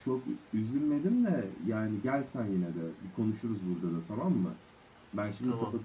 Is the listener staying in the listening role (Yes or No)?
Yes